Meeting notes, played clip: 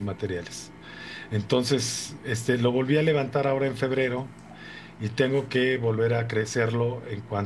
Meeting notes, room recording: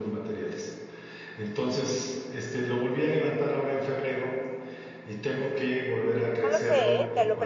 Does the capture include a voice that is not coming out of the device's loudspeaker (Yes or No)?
Yes